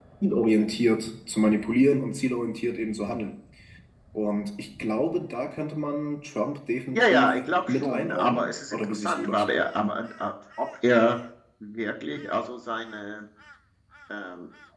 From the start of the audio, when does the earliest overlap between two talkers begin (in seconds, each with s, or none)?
6.9 s